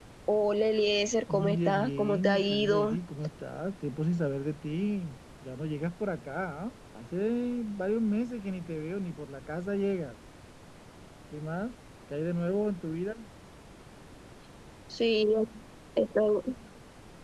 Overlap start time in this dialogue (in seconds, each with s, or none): 1.3 s